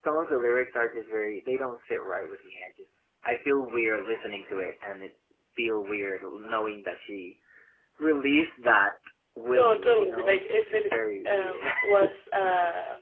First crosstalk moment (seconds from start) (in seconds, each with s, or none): 9.5 s